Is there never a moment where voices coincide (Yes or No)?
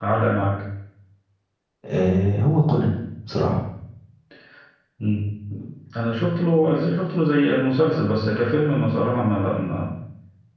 Yes